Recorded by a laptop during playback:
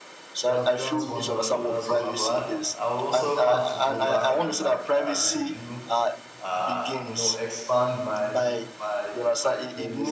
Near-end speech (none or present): present